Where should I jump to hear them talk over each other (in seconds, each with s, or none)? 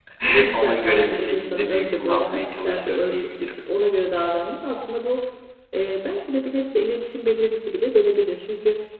0.5 s